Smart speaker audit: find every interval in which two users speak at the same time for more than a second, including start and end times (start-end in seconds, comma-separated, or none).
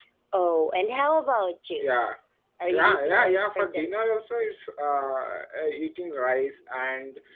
2.7-4.1